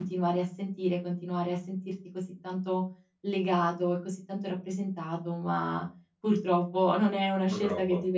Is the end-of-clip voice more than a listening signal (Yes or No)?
No